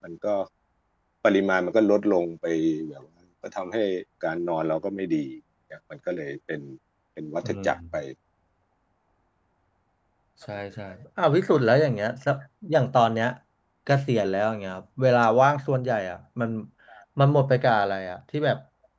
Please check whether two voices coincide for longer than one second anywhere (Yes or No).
No